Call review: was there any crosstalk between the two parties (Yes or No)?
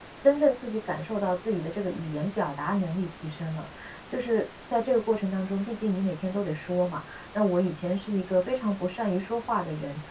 No